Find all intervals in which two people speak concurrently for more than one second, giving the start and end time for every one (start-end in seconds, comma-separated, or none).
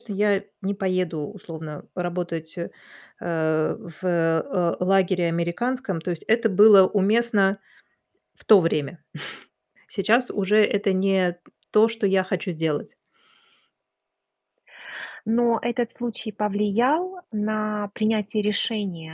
none